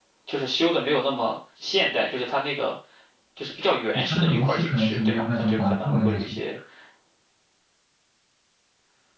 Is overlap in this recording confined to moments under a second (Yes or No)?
No